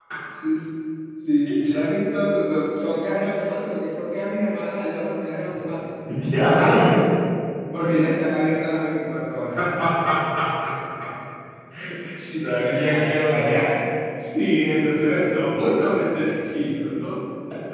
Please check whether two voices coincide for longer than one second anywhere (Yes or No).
Yes